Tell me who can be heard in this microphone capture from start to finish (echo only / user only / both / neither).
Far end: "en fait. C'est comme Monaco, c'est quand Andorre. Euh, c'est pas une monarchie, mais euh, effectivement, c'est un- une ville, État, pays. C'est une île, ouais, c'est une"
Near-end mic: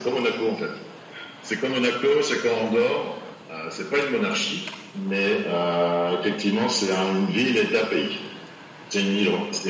echo only